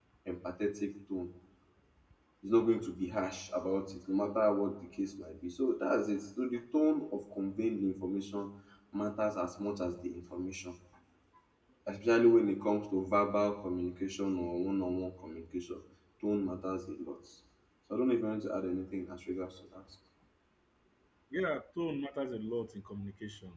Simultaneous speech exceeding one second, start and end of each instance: none

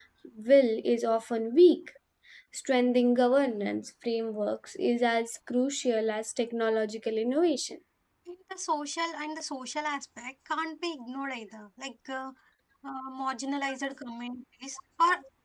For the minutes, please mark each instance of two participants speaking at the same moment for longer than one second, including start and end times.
none

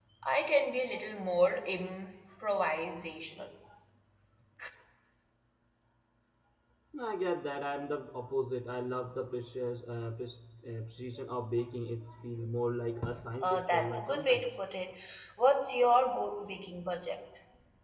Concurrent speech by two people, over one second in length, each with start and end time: 13.4-14.6

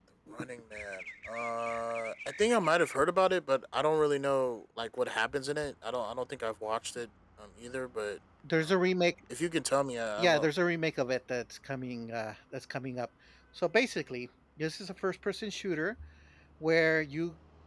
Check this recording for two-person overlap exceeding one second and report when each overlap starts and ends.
none

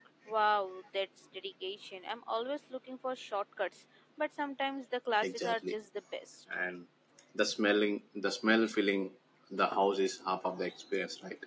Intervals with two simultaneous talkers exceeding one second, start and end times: none

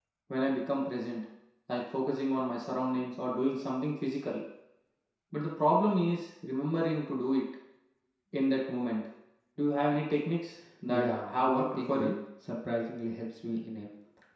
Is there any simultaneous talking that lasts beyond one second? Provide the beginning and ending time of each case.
10.9-12.1

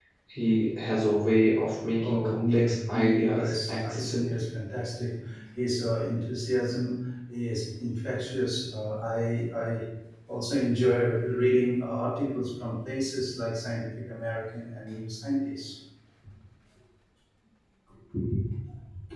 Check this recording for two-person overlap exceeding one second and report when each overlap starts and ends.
2.0-4.2

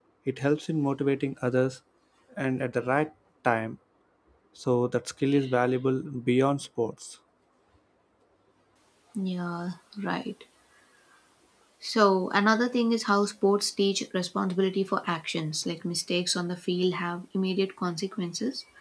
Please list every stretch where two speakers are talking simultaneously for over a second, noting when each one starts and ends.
none

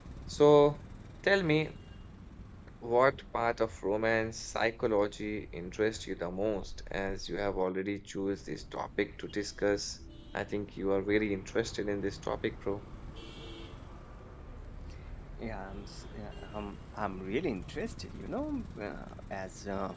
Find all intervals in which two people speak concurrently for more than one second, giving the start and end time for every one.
none

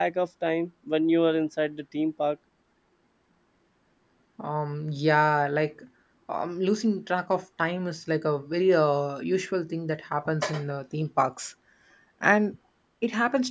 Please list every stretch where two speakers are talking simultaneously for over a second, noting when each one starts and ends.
none

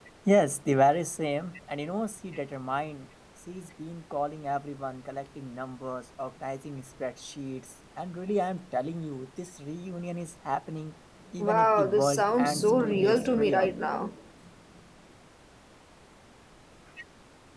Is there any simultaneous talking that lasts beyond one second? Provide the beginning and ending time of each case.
11.4-13.7

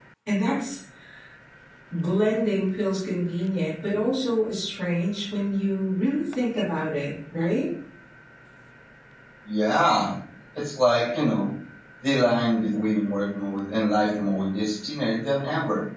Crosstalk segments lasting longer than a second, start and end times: none

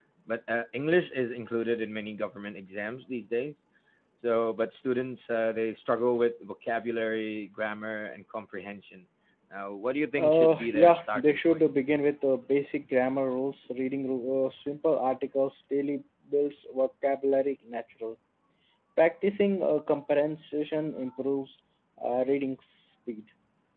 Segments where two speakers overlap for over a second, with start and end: 10.2-11.6

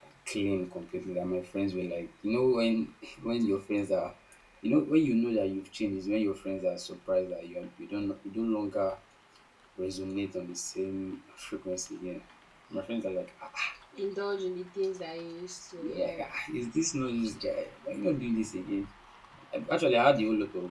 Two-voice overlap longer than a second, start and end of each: none

